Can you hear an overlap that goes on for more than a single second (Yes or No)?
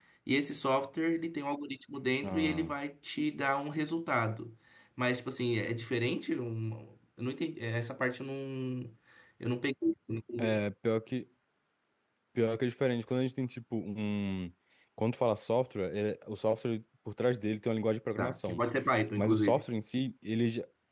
No